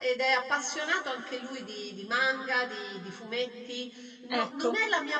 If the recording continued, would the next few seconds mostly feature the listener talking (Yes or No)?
No